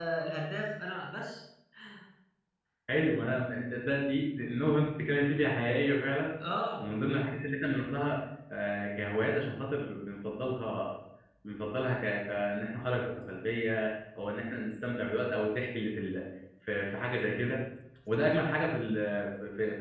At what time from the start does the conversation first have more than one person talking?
none

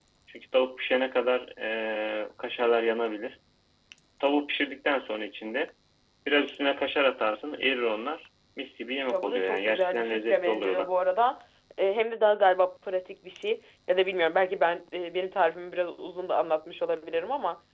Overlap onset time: 9.1 s

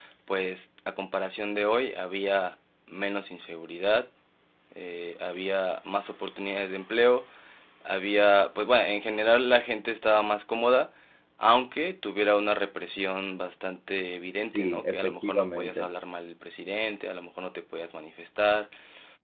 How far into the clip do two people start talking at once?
14.5 s

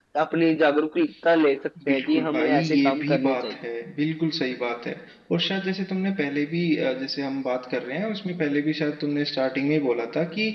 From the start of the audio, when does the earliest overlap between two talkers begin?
1.8 s

